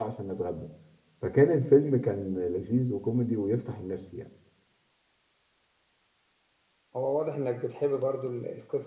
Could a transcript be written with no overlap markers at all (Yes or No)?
Yes